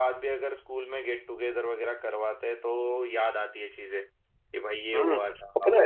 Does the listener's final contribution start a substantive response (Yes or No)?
Yes